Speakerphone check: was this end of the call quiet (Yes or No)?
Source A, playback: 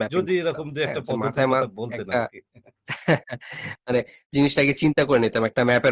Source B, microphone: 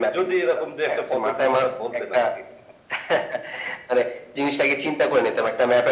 Yes